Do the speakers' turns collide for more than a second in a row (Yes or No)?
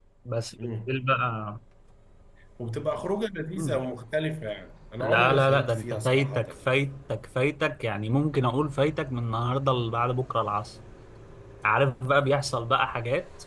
Yes